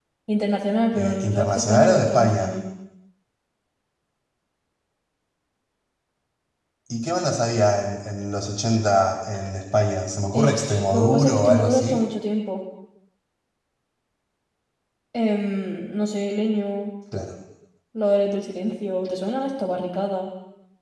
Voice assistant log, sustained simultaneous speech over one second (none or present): present